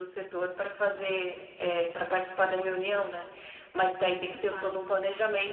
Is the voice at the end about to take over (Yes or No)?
No